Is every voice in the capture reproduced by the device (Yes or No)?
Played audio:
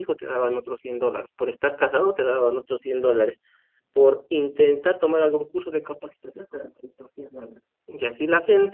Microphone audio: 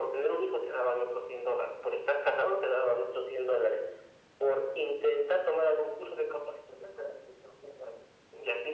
Yes